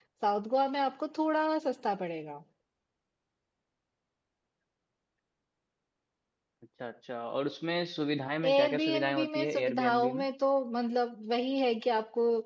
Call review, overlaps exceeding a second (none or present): present